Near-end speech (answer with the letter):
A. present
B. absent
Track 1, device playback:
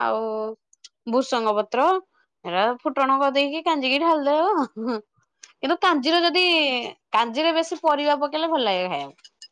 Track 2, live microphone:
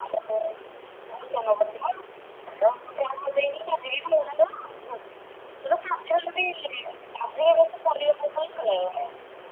B